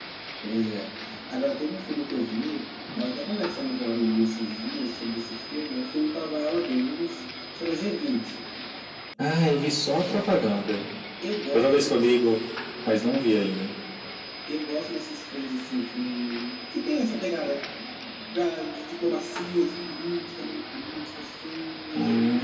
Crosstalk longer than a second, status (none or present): none